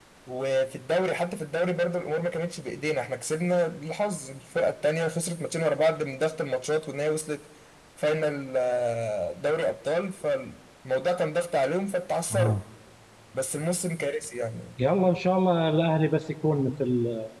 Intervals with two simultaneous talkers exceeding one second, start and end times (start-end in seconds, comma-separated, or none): none